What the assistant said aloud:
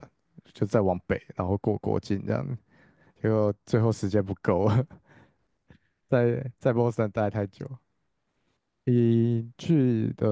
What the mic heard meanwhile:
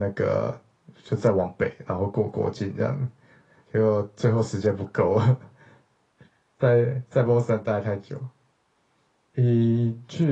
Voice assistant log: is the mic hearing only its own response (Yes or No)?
Yes